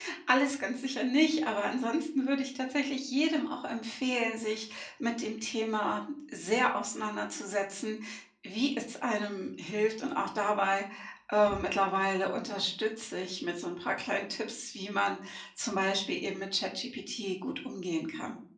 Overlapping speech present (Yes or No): No